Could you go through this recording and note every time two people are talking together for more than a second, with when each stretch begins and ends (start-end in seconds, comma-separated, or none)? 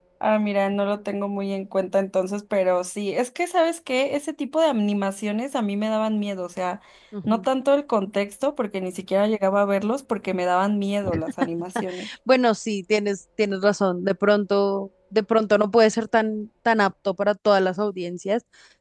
none